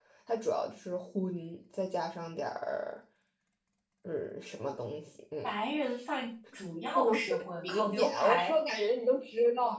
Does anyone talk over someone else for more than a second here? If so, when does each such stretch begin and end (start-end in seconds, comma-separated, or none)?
7.0-8.5